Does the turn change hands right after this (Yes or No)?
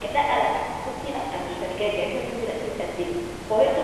No